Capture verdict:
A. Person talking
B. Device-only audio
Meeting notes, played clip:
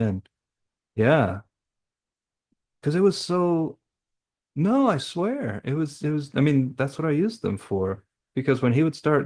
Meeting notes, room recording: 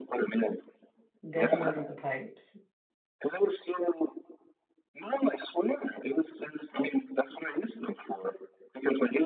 A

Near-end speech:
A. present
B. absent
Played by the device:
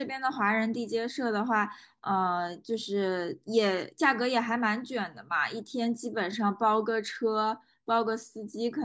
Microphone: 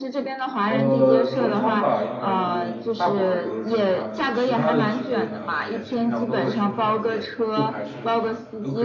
A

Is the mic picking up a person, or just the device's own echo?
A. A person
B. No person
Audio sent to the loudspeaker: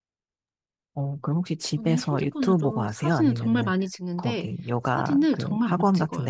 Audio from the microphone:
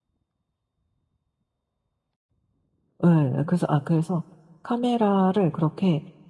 A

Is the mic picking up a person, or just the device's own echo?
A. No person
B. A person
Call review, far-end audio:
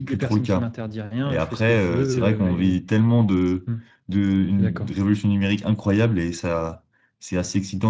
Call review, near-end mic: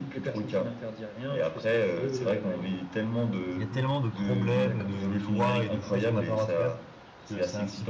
B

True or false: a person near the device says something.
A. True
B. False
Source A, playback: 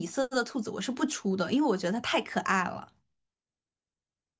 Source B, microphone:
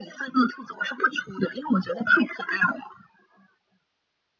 B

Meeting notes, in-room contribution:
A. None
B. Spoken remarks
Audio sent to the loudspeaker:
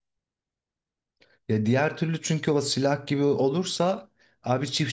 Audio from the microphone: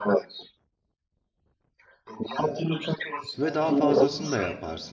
B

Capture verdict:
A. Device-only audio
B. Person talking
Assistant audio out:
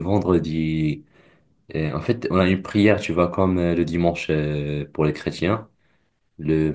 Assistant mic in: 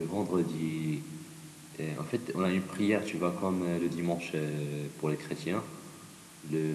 A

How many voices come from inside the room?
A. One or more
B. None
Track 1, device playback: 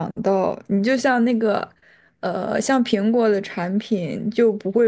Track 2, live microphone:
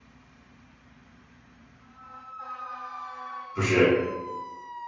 A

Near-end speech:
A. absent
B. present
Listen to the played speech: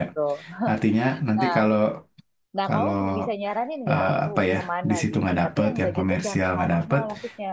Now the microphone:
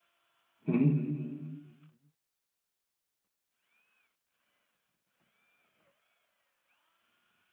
B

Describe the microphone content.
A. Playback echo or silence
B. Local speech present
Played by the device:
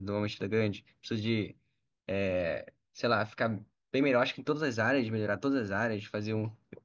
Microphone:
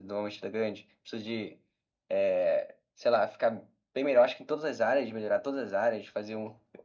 A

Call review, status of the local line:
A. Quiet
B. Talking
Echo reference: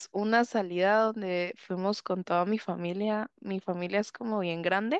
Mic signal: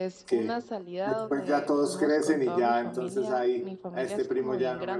B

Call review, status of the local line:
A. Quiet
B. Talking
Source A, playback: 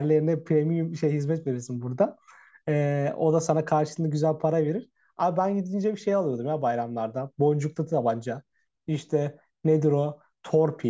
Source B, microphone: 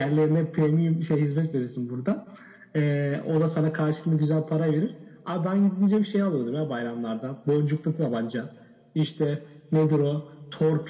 A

